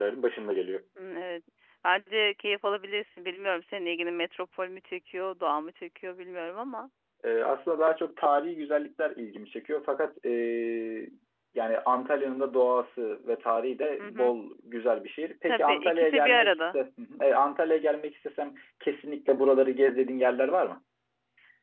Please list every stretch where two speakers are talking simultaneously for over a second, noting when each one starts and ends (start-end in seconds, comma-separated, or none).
15.5-16.8